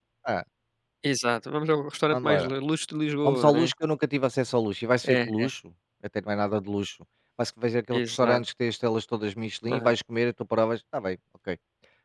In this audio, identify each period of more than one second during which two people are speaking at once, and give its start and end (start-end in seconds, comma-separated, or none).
none